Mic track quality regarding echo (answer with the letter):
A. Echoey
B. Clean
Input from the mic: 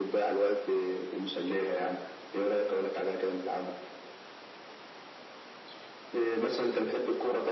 A